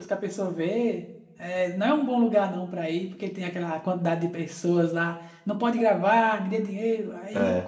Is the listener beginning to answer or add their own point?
No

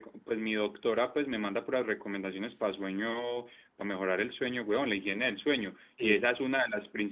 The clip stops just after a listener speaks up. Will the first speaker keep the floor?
Yes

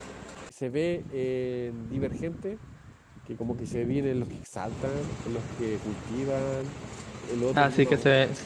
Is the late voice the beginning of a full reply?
Yes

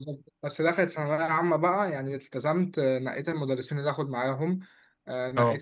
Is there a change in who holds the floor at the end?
No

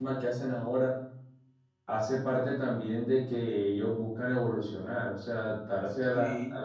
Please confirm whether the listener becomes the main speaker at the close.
No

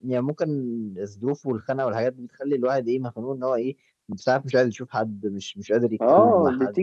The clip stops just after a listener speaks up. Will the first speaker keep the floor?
No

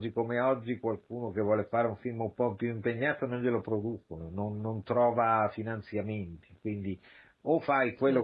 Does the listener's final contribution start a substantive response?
No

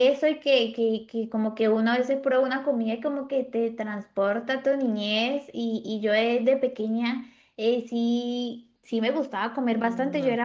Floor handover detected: No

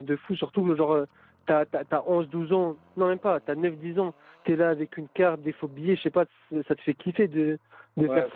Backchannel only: Yes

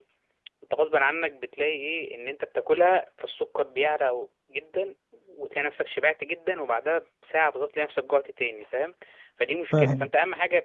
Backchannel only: Yes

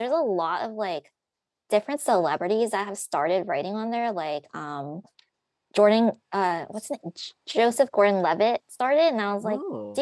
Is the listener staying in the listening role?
Yes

